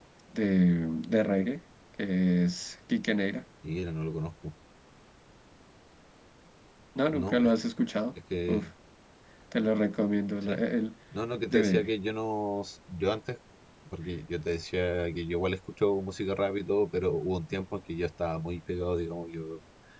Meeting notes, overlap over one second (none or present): none